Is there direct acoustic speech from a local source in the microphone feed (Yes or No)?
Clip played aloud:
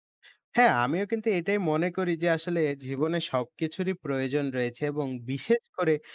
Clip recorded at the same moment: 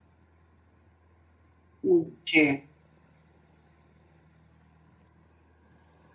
Yes